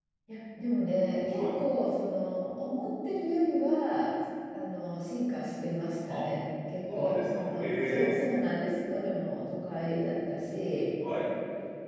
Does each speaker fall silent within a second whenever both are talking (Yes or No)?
No